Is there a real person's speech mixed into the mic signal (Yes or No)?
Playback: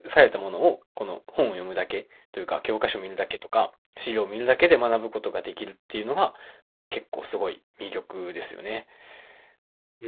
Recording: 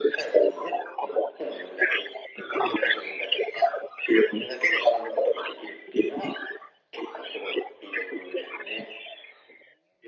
No